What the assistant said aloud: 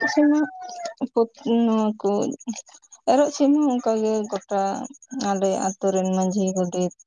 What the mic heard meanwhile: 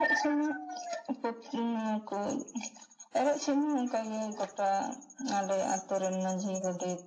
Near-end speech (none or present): none